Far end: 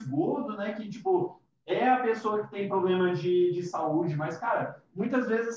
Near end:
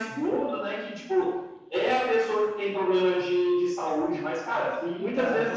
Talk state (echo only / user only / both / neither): both